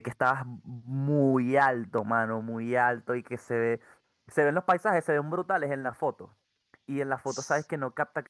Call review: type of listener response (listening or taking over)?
listening